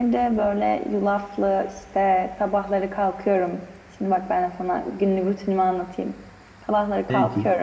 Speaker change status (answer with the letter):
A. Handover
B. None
B